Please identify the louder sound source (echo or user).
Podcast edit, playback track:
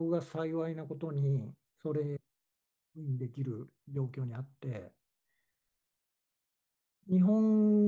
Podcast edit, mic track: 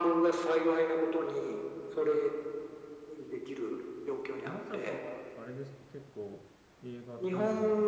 echo